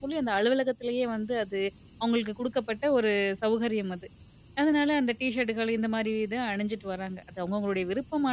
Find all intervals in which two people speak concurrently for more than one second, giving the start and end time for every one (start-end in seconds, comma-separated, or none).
none